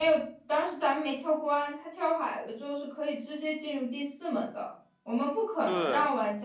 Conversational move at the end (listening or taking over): listening